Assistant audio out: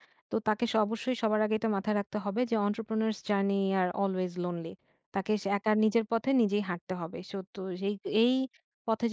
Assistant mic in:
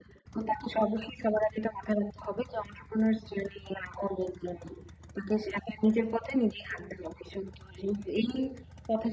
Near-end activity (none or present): none